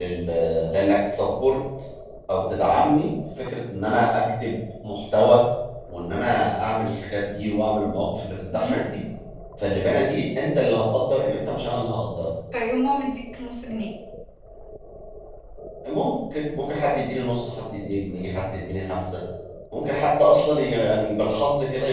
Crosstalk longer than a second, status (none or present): none